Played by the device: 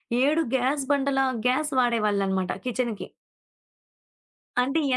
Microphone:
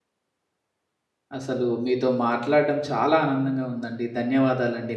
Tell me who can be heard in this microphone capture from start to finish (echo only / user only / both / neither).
user only